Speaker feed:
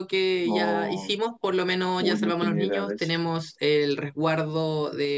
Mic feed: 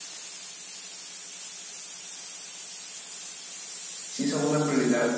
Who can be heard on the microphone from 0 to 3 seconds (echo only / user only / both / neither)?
neither